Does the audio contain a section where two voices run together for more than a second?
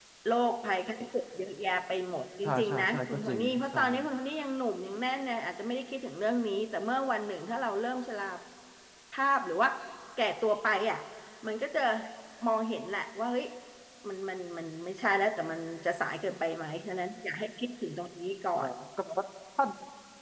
Yes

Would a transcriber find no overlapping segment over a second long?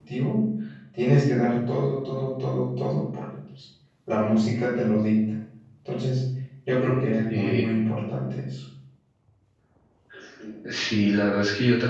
Yes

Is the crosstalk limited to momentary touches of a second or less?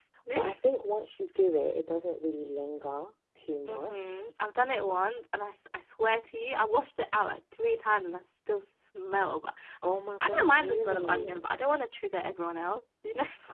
No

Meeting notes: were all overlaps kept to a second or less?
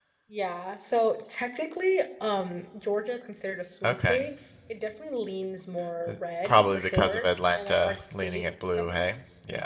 No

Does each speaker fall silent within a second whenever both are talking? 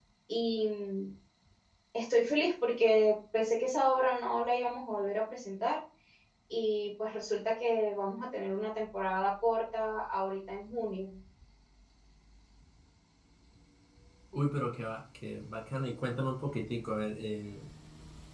Yes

